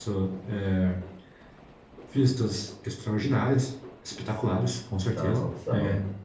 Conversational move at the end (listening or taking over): listening